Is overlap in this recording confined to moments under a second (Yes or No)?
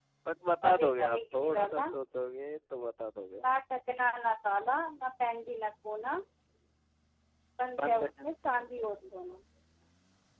No